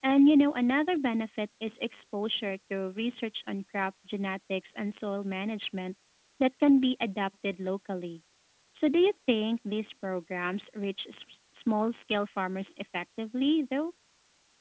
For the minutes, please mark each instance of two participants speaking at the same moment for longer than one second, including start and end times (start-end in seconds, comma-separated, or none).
none